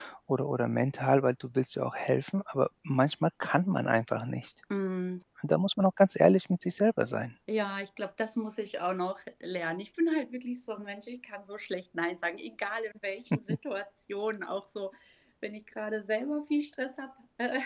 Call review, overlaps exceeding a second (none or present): none